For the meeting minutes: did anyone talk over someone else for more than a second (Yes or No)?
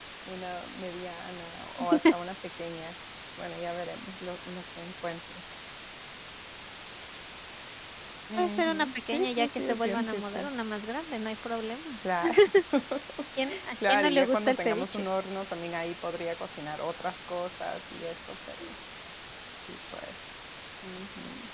Yes